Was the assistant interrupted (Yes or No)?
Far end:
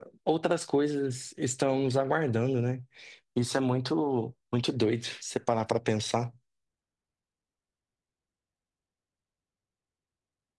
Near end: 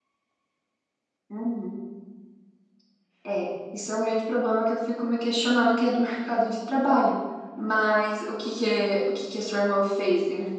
Yes